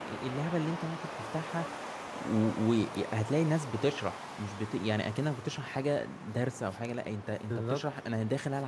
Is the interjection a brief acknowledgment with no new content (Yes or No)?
Yes